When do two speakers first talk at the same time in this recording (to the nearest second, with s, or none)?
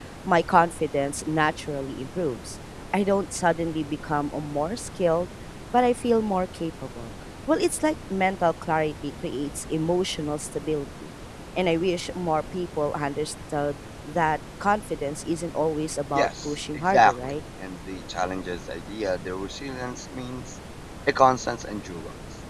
16 s